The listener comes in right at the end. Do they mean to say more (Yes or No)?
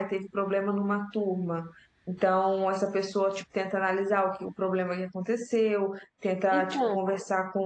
No